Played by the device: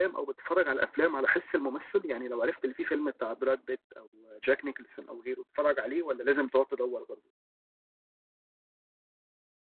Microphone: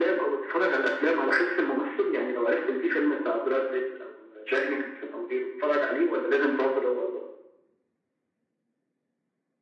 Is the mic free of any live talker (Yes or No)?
Yes